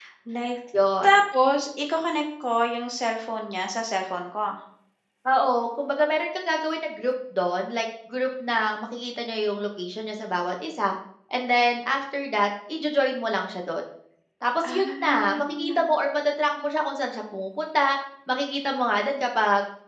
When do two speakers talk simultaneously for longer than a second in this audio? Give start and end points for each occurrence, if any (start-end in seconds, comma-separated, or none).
14.7-15.9